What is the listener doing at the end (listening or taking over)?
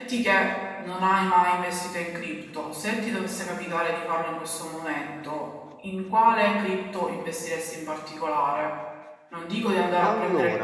listening